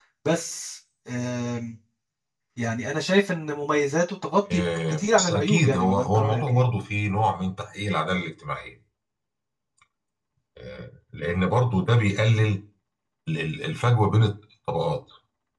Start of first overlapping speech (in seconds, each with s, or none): 4.5 s